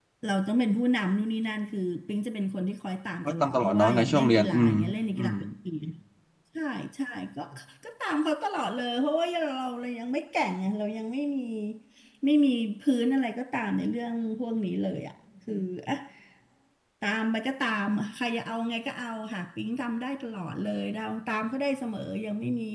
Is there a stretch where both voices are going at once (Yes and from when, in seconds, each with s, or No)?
Yes, from 3.2 s